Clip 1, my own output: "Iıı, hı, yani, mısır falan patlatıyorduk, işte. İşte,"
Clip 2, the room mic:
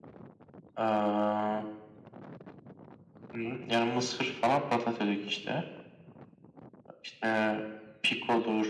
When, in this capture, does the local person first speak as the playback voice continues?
none

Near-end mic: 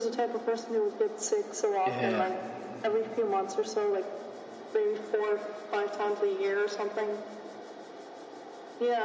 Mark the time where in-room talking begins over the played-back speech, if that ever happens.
1.9 s

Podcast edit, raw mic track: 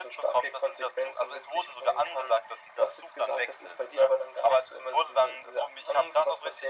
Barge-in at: none

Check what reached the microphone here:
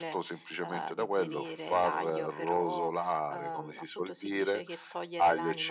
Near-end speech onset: none

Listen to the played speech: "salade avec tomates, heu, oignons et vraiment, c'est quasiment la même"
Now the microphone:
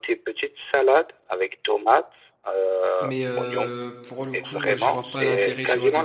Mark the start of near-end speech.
3.0 s

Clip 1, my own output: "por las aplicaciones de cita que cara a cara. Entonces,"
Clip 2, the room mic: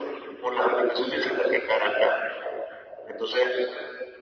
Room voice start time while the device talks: none

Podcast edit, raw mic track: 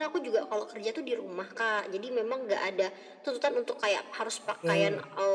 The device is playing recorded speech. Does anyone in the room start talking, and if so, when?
4.4 s

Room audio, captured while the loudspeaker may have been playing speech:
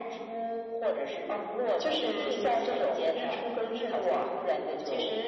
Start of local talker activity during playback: none

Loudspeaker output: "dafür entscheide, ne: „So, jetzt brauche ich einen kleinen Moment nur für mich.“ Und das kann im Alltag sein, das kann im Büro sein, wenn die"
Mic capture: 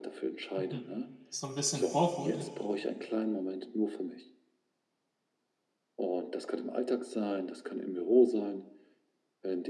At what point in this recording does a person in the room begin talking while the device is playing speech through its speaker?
0.6 s

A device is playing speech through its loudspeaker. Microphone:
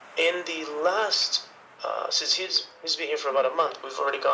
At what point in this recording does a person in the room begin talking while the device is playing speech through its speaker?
none

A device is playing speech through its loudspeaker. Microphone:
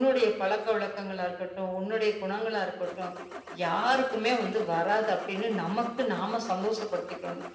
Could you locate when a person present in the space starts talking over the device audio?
none

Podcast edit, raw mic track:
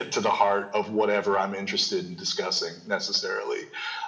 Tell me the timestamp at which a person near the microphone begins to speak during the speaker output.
none

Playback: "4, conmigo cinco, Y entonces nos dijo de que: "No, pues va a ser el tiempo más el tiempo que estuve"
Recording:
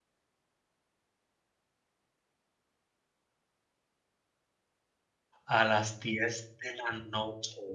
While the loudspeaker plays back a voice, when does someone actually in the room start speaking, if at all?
5.5 s

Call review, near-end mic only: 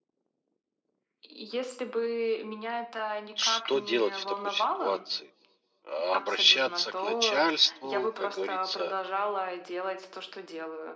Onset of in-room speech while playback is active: 3.2 s

